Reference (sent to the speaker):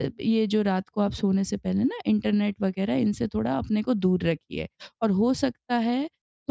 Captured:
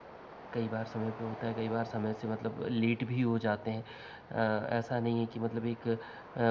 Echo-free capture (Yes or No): Yes